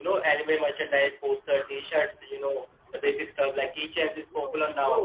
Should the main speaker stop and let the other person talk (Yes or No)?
Yes